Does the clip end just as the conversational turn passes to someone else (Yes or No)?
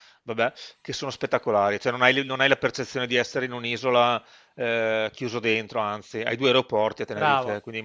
Yes